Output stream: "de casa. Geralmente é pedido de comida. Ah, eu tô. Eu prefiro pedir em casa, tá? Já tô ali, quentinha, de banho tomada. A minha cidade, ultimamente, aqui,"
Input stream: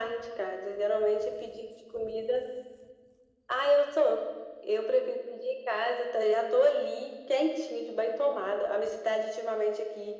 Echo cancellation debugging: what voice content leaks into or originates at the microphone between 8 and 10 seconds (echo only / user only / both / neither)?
echo only